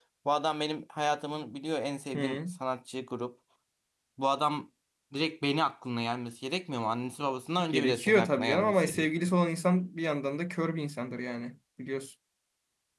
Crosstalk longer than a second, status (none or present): present